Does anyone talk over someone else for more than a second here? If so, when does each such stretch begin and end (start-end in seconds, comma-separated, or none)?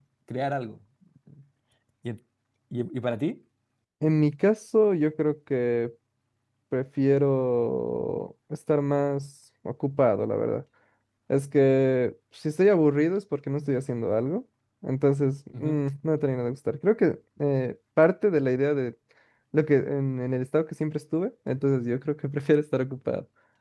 none